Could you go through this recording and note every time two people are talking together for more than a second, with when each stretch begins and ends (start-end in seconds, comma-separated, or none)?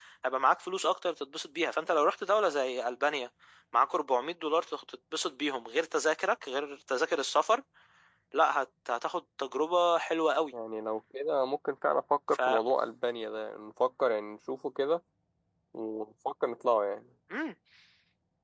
none